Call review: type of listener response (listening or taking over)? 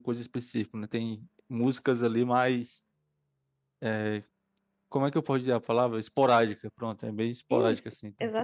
taking over